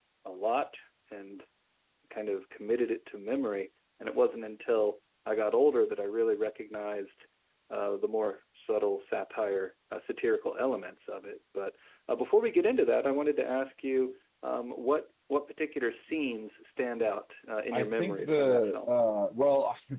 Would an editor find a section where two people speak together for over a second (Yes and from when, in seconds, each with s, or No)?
Yes, from 17.7 s